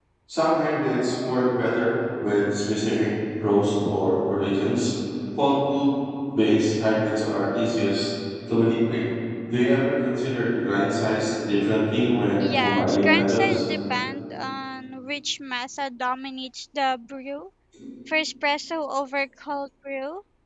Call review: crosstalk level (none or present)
present